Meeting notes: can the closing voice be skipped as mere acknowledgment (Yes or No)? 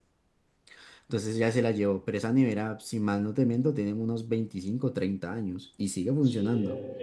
No